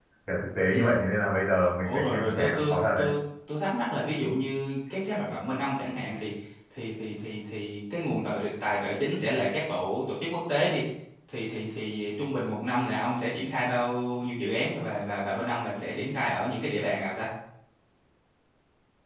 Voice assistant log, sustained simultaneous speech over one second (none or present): present